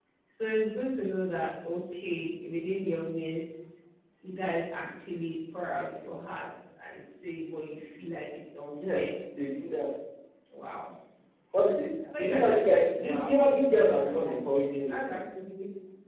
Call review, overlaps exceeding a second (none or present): present